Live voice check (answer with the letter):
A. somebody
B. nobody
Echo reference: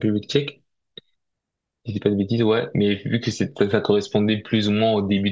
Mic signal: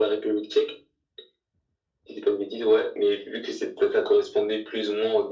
B